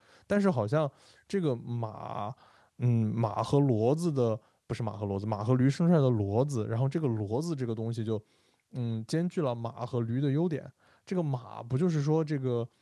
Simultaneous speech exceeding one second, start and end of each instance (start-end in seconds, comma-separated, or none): none